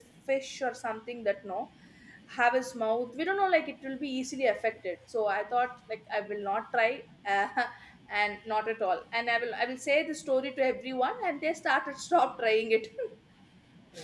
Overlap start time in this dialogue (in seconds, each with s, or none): none